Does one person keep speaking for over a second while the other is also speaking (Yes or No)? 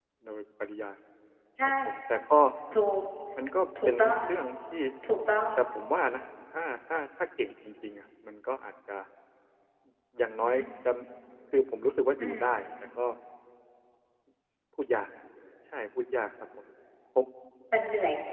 No